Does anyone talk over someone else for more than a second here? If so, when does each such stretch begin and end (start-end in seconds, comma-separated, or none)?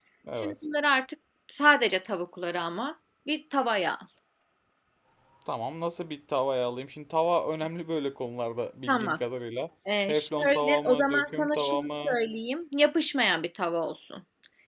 10.1-12.2